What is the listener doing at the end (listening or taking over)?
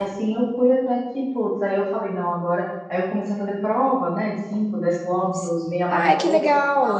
taking over